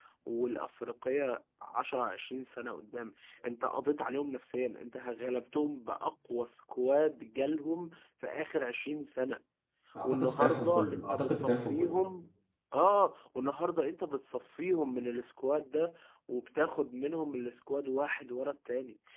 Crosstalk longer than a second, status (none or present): present